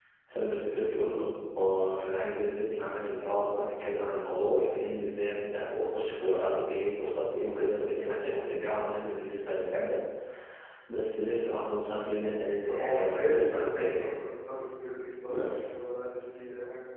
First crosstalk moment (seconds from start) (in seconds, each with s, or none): 12.6 s